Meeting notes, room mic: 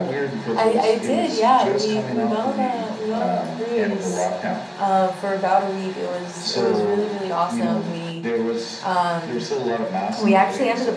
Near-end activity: present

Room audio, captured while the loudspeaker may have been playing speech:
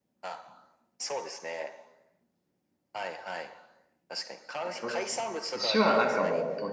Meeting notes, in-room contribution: present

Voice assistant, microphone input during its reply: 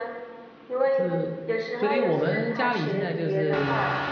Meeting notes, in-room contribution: present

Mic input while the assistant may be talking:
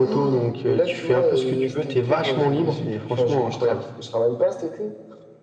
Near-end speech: none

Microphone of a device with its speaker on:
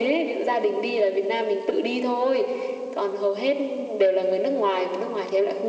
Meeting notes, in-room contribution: none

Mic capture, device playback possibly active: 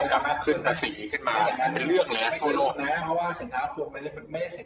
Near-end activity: present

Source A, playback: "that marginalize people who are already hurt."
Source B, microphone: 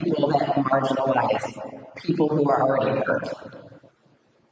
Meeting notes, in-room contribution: none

